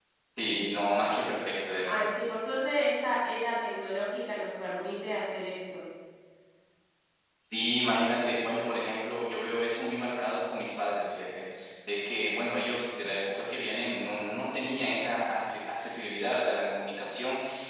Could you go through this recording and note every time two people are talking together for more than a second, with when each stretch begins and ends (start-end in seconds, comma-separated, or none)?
none